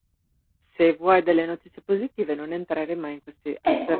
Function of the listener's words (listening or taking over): listening